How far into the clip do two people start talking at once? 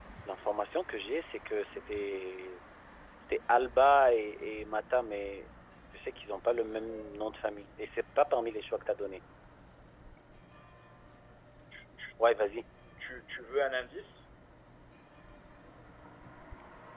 none

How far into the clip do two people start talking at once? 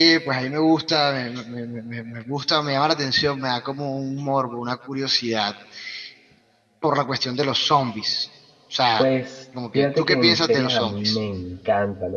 9.7 s

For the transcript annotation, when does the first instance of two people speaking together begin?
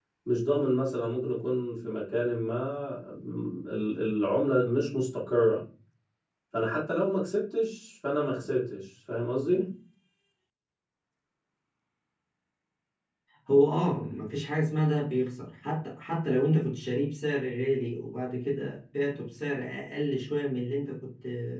none

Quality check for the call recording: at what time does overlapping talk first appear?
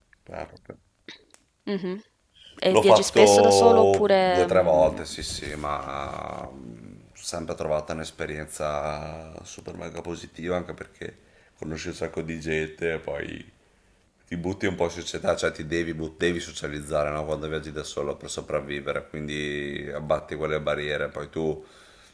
2.7 s

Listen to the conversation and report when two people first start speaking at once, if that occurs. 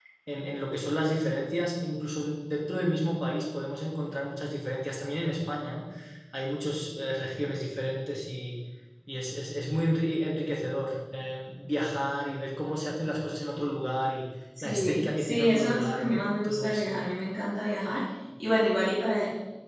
14.6 s

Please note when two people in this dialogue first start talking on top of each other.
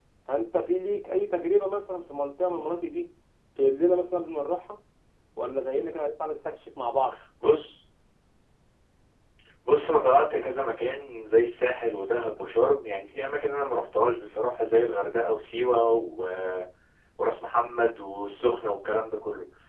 none

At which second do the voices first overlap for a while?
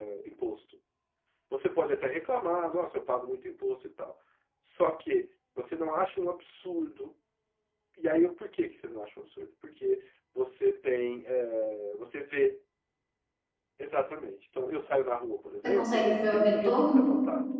15.6 s

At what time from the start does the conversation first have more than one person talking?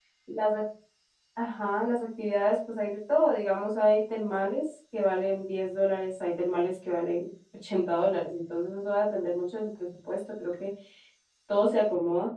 none

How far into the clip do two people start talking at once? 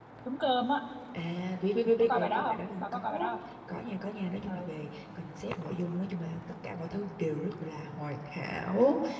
2.0 s

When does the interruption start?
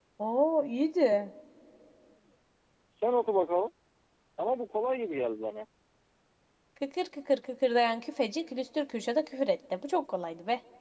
none

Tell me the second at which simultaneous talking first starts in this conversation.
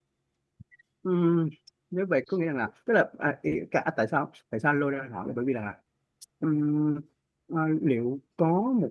none

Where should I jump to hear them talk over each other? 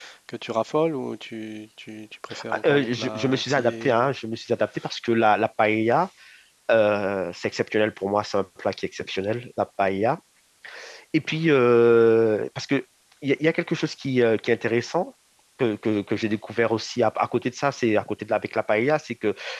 2.3 s

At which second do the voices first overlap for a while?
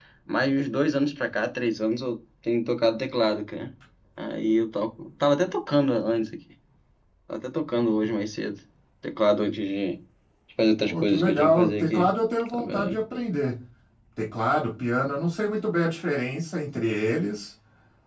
10.8 s

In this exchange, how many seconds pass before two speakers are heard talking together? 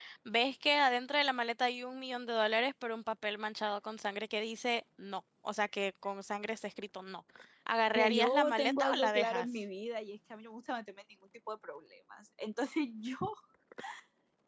7.9 s

